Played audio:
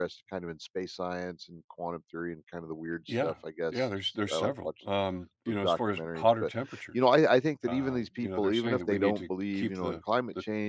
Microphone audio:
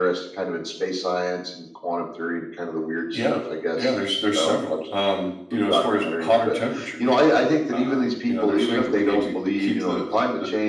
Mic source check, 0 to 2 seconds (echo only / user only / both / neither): echo only